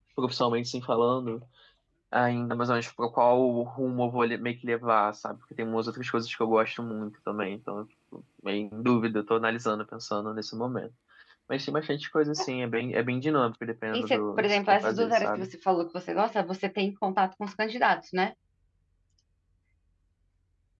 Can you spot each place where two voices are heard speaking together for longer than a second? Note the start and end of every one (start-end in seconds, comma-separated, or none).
13.9-15.5